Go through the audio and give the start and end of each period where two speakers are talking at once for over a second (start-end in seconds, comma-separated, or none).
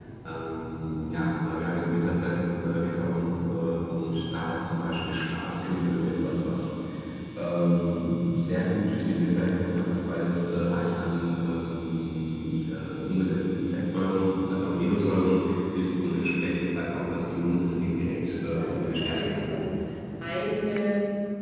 18.1-19.5